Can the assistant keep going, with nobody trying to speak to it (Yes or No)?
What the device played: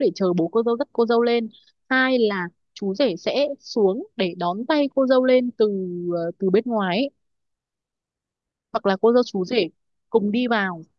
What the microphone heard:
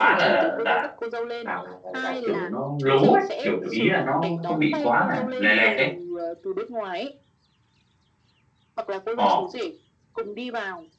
No